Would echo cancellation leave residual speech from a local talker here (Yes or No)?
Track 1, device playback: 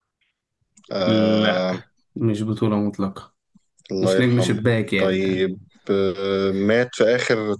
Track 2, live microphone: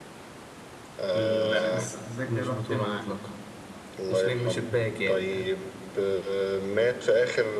Yes